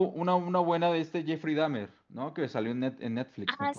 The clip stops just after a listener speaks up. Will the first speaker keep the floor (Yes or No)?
No